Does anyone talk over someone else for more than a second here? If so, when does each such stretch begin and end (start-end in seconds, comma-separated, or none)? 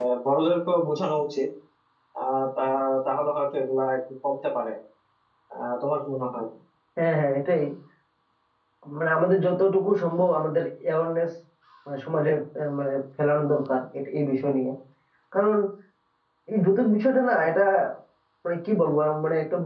none